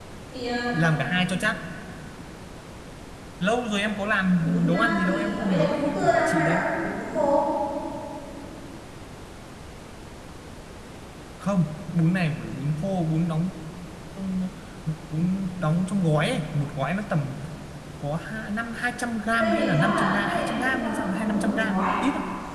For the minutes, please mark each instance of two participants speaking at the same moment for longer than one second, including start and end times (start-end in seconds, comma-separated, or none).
4.4-6.6, 19.4-21.9